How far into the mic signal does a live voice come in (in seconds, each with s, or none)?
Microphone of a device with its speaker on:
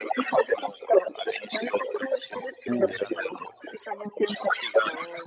2.6 s